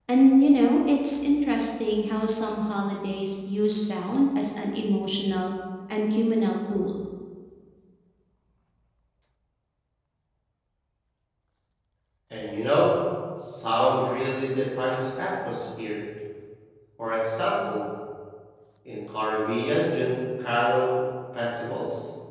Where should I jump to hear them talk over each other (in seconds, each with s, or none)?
none